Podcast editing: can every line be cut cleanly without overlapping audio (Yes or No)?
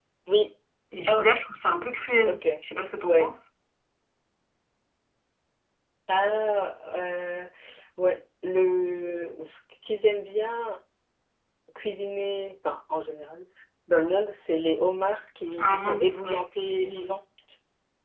No